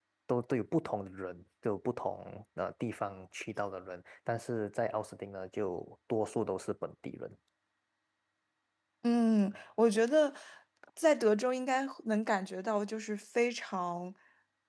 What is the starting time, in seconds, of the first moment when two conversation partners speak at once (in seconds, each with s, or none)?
none